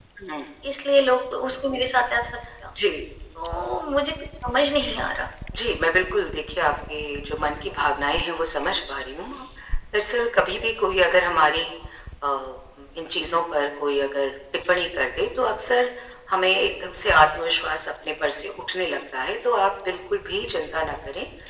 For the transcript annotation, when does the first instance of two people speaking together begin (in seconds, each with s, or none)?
none